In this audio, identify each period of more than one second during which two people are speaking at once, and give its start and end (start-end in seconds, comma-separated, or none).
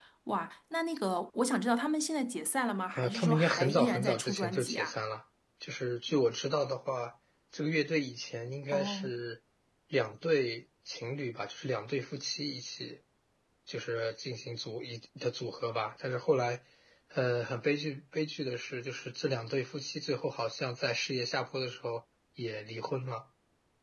3.0-5.0